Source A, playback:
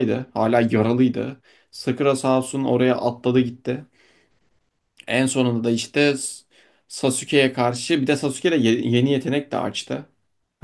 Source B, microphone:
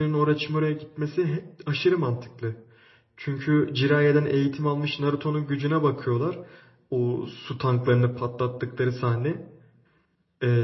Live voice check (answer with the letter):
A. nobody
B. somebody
B